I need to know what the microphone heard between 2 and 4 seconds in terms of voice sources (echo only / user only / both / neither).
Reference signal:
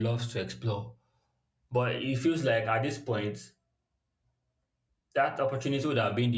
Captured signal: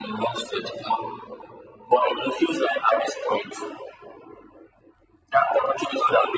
echo only